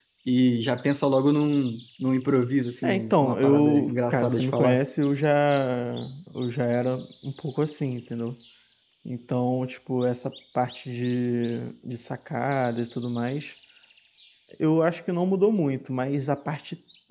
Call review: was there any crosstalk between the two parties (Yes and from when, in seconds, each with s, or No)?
Yes, from 2.8 s